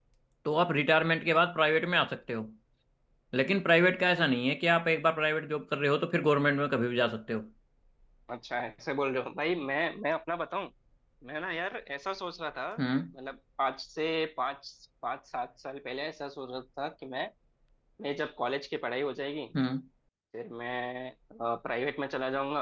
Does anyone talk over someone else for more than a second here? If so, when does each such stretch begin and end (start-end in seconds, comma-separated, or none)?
none